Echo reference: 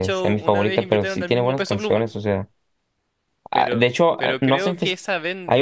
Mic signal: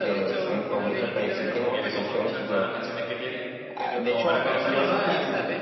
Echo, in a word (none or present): present